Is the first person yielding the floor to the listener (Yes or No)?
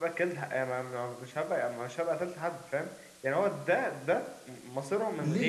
Yes